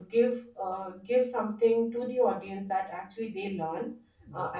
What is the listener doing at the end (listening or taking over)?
listening